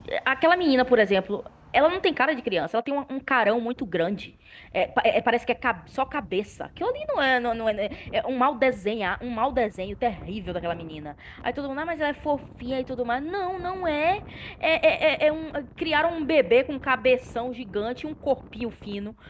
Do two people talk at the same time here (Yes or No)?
No